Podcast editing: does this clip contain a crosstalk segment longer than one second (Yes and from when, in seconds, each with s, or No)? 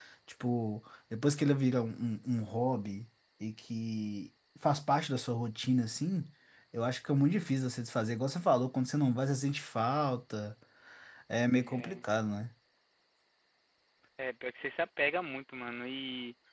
No